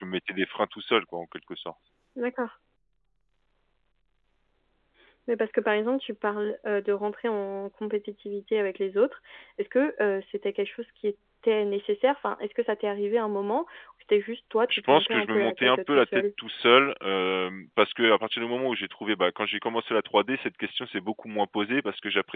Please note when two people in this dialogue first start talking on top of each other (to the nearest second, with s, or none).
15 s